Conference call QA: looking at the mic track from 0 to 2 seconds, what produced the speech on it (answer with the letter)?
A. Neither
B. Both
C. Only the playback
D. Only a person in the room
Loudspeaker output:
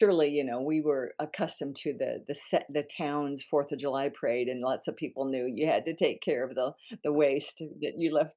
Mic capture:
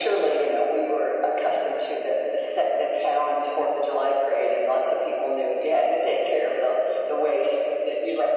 C